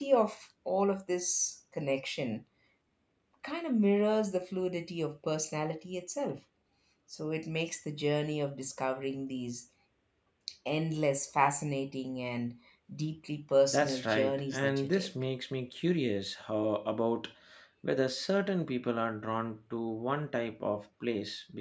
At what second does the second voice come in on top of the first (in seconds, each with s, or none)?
13.7 s